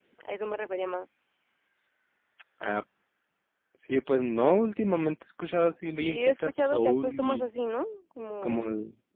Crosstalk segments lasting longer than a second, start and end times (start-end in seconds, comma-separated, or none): 6.0-7.5